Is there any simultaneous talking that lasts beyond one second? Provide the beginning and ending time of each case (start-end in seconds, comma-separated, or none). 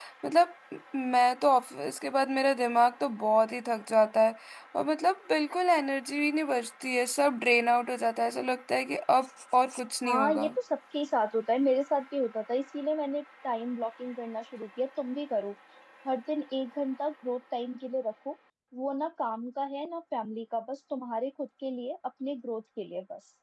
none